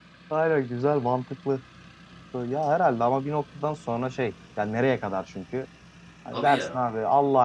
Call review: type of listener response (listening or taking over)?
listening